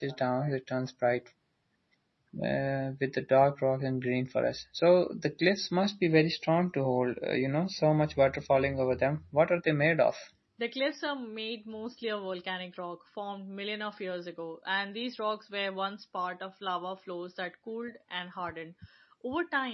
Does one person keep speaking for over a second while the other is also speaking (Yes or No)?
No